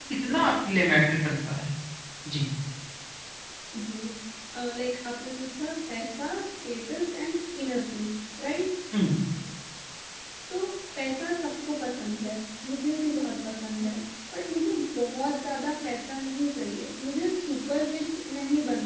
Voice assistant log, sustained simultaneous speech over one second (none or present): none